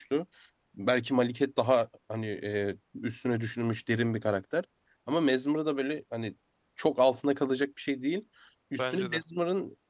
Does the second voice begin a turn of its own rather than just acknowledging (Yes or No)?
No